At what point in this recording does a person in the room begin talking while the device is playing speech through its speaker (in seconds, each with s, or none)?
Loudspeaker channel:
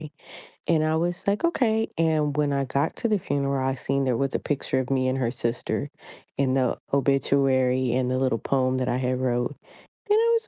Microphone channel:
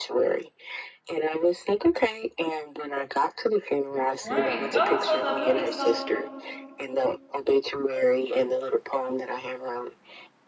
4.2 s